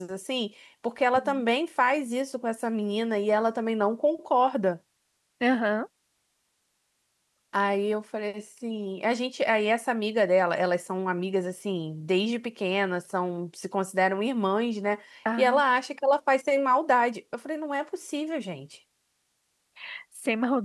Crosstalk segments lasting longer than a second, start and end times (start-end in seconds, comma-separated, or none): none